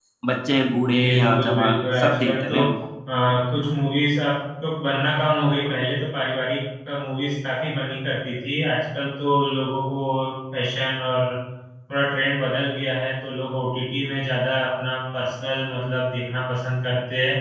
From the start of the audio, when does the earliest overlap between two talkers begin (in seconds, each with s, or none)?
1.0 s